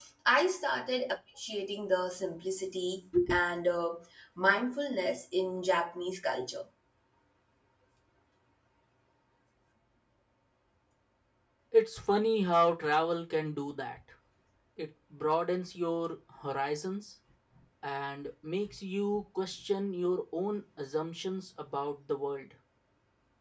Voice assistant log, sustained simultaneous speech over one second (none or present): none